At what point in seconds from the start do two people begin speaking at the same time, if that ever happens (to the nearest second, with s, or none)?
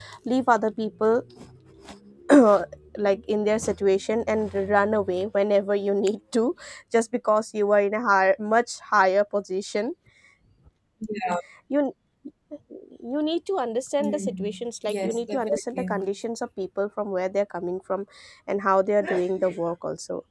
14 s